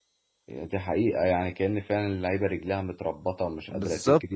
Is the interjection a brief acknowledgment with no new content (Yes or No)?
No